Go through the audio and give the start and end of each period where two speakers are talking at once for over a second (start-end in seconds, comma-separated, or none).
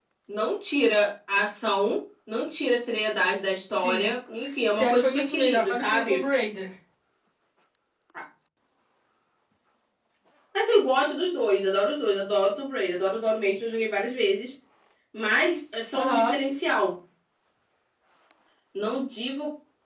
4.7-6.2